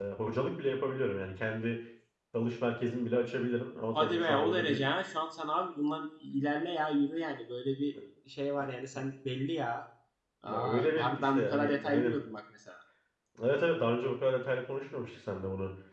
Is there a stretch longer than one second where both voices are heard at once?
Yes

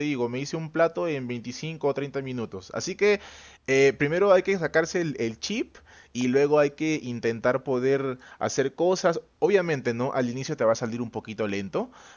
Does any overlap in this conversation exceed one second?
No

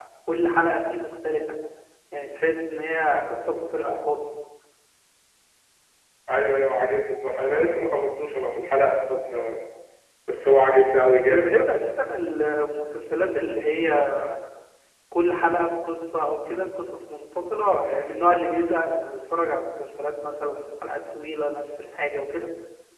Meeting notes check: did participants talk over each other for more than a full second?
No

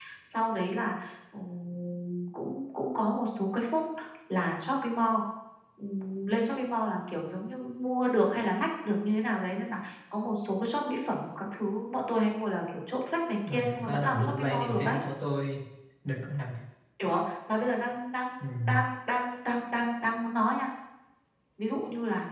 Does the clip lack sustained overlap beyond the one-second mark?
No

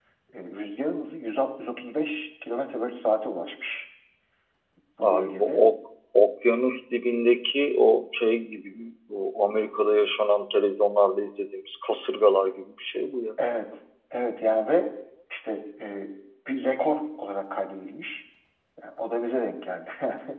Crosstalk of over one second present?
No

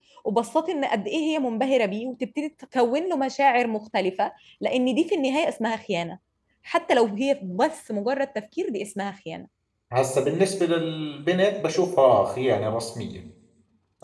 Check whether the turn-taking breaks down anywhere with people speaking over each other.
No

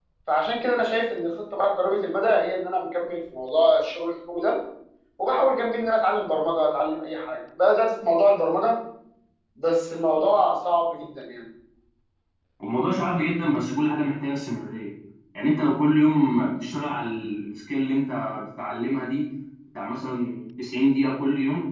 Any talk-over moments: No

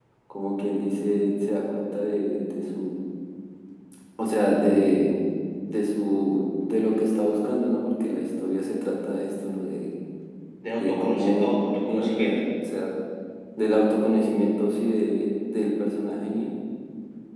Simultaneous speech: Yes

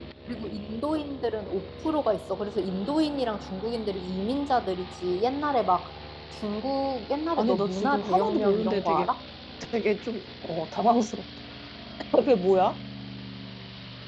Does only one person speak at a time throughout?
No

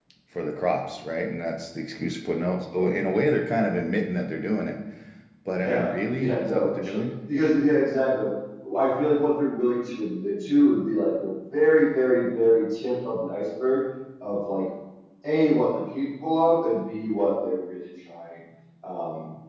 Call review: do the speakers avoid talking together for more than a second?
No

